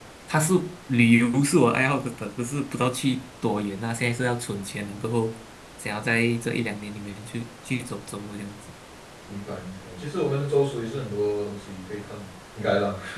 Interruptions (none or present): none